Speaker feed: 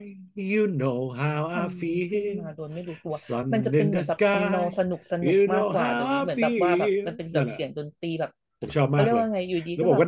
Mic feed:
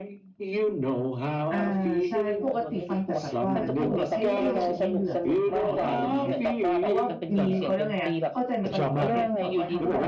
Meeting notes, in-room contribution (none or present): present